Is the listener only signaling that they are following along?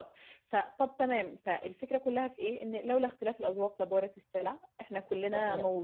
No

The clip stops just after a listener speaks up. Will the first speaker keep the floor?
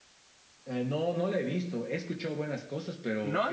No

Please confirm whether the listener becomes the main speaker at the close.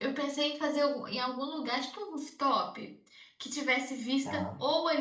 No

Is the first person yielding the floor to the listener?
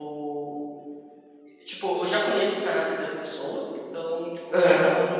No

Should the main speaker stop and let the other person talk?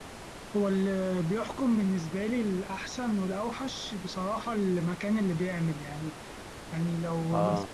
No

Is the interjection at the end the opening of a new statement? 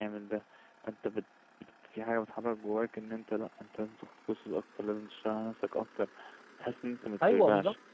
Yes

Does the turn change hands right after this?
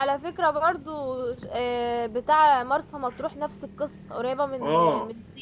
Yes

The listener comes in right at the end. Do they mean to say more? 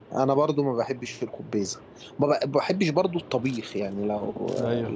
No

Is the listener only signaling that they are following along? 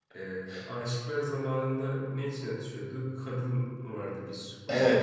No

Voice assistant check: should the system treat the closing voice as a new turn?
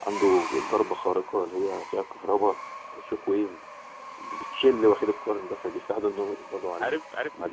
Yes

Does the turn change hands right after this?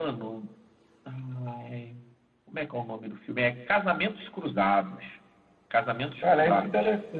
Yes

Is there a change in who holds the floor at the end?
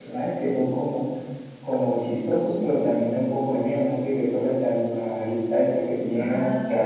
Yes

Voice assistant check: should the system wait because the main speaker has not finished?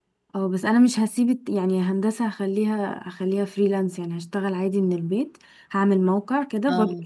Yes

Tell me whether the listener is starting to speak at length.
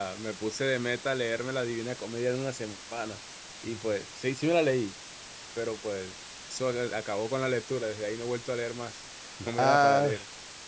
Yes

